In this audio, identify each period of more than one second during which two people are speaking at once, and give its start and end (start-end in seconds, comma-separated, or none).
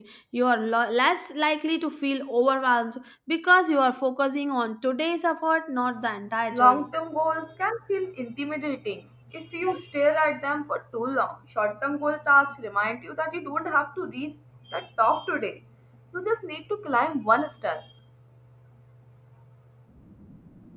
none